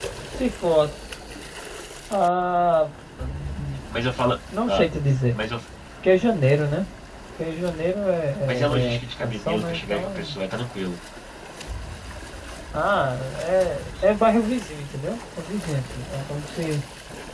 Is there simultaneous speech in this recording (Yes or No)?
Yes